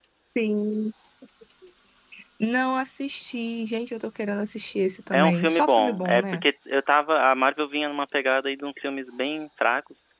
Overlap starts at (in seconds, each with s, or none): 5.1 s